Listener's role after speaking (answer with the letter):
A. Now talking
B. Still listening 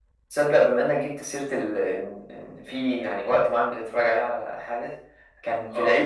B